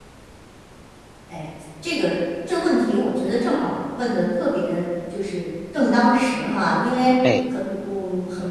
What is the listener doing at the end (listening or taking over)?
listening